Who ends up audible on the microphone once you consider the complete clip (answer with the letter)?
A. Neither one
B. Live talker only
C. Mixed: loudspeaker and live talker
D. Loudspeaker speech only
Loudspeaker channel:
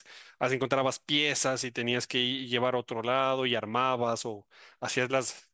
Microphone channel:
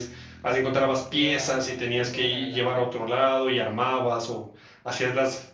C